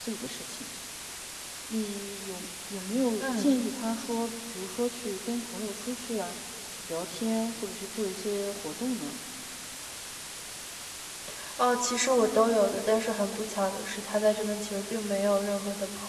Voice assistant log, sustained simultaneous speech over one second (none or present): none